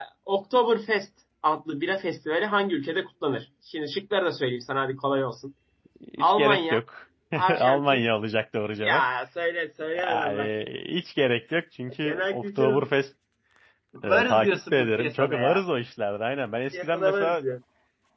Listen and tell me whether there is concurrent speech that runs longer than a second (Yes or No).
Yes